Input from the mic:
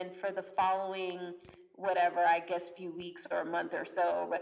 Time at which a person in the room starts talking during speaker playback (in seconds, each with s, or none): none